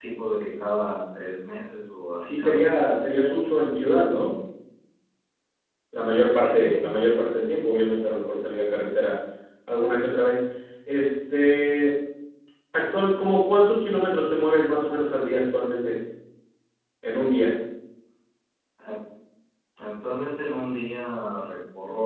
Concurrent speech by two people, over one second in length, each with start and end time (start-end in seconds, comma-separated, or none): none